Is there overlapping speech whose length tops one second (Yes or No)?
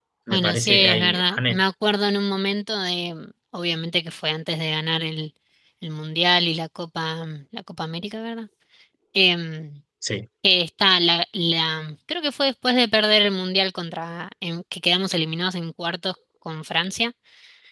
Yes